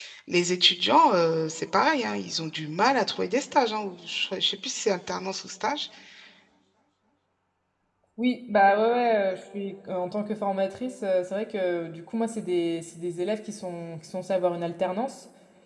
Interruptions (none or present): none